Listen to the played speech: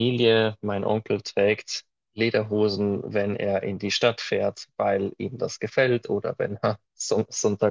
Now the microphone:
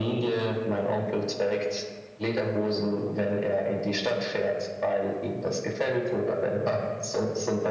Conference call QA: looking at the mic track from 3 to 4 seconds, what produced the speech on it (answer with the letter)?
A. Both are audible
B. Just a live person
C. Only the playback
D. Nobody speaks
C